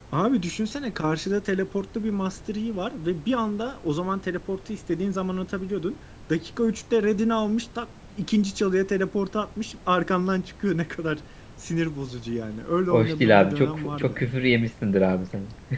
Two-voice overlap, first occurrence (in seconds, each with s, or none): 12.9 s